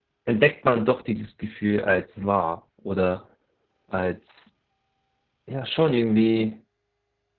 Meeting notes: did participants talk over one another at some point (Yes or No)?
No